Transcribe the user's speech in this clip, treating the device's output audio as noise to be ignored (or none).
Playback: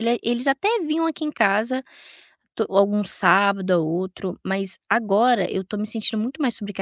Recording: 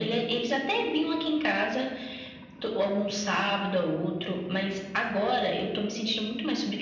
none